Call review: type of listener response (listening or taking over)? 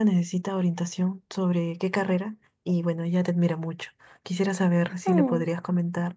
listening